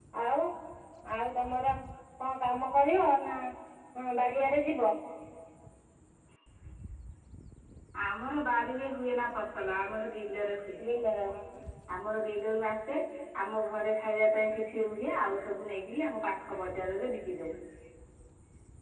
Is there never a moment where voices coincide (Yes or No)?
Yes